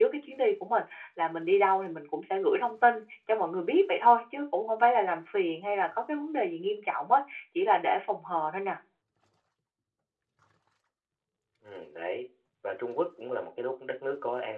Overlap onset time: none

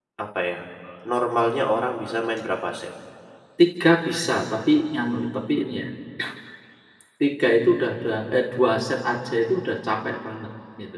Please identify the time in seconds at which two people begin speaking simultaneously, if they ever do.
none

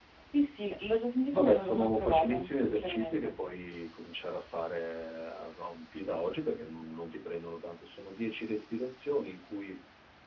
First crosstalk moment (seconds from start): 1 s

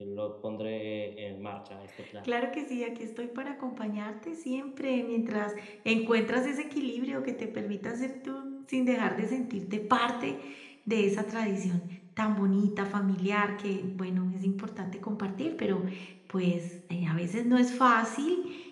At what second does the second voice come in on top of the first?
none

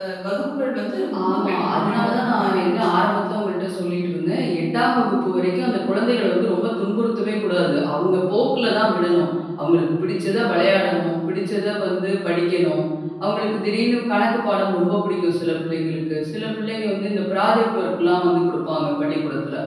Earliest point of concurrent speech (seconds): 1 s

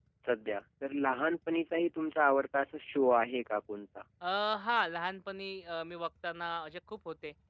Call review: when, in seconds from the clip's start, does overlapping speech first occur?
none

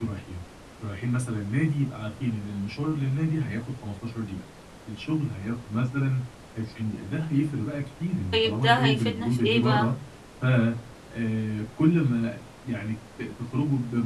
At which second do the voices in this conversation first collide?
8 s

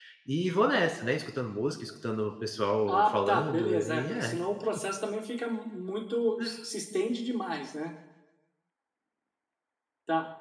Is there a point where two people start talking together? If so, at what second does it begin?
3 s

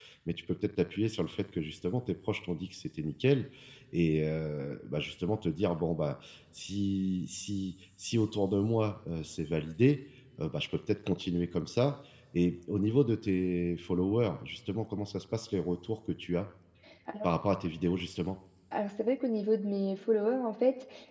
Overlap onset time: none

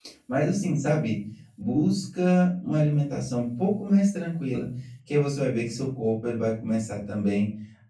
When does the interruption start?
none

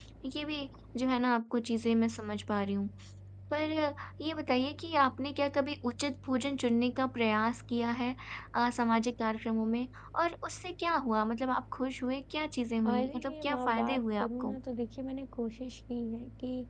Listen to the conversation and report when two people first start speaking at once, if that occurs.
13 s

